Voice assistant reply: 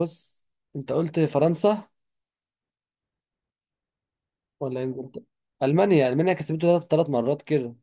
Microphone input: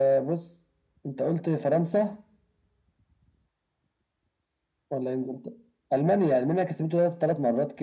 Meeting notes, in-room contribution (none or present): none